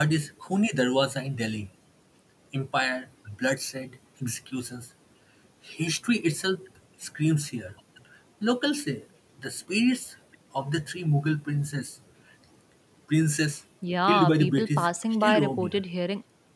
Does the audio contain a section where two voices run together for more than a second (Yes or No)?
Yes